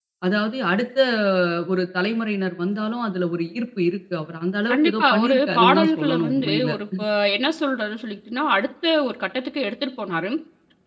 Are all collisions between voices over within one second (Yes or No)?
No